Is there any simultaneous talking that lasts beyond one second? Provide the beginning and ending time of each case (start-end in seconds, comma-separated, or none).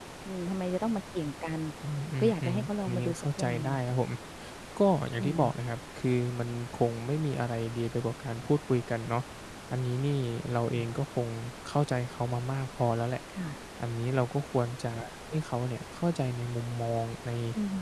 2.2-3.8